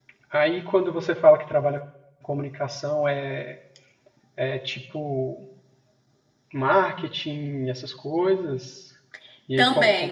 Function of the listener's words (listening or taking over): taking over